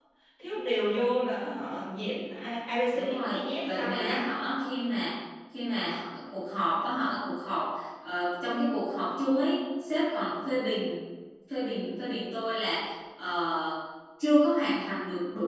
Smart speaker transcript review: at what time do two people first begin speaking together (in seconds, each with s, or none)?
2.9 s